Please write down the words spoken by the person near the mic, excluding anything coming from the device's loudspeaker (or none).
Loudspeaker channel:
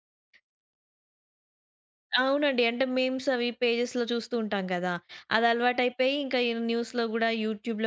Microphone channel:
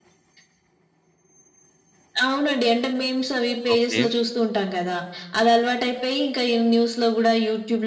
ఓకే.